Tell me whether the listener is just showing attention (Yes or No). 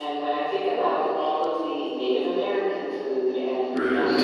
Yes